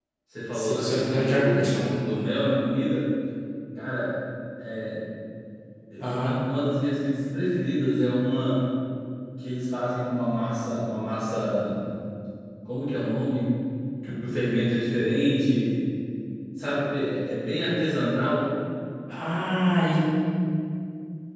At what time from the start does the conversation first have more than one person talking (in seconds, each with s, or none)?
0.5 s